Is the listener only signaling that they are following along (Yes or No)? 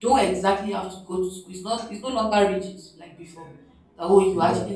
Yes